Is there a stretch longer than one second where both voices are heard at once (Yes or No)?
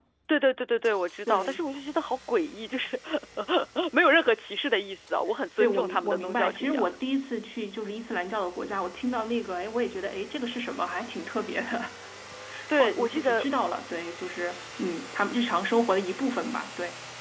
Yes